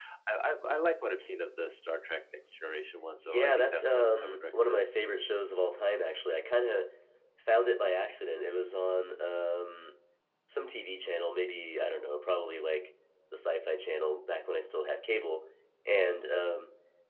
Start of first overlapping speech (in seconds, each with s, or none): 3.2 s